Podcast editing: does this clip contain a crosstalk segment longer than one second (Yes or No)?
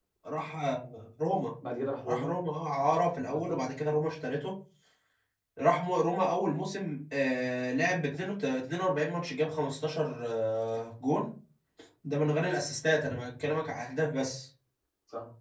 No